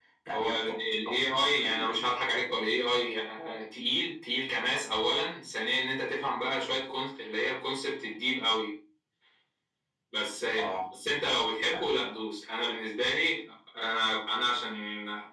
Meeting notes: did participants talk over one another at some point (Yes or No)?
Yes